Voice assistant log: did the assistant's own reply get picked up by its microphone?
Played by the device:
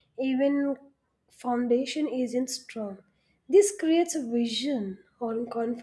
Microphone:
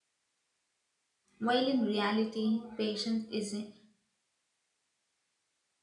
No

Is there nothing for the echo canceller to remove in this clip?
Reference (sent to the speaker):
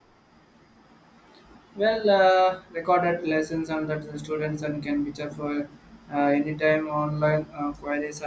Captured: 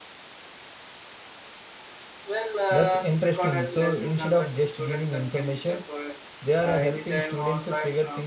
No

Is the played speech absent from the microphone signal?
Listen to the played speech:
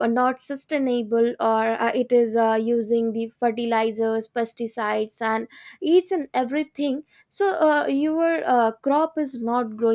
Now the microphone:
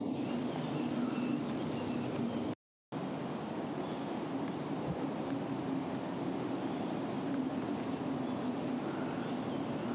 Yes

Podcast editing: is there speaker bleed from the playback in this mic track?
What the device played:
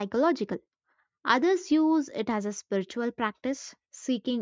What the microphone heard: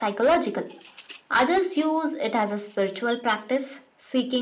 Yes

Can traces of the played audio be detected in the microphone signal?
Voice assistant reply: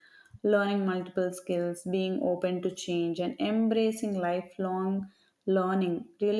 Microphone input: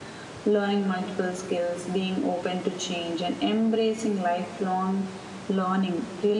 Yes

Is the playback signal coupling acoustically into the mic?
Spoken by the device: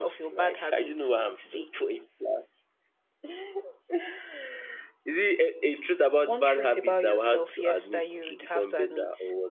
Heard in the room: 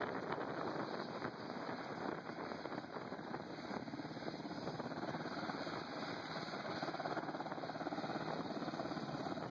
No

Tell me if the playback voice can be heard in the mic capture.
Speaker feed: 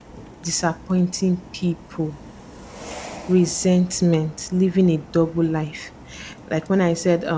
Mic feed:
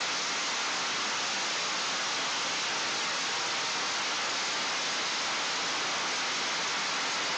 No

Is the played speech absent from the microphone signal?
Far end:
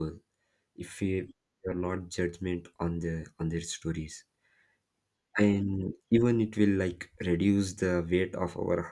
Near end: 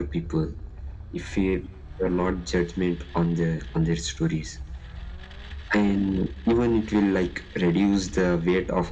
No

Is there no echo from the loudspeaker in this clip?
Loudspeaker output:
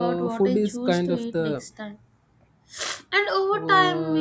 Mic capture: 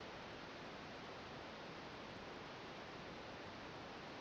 Yes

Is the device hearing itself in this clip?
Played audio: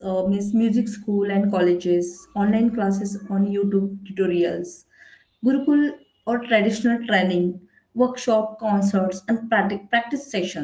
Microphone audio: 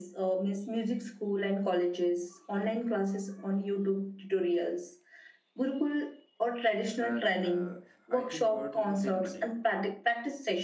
Yes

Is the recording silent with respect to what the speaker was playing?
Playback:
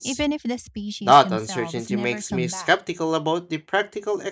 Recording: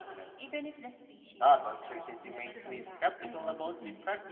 No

